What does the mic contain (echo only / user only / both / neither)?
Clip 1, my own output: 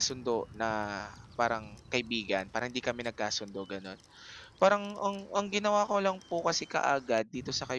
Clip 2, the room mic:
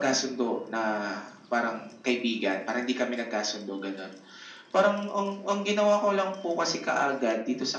echo only